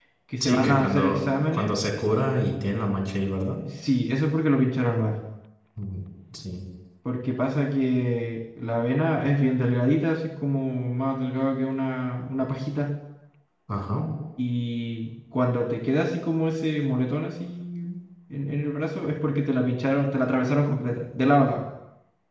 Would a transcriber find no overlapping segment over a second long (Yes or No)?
No